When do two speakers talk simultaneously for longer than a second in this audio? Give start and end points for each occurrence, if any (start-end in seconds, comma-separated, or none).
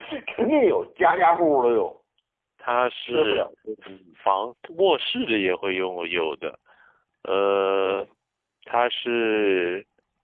none